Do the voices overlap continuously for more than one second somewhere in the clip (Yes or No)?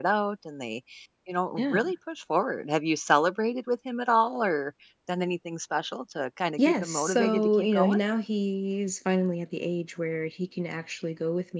Yes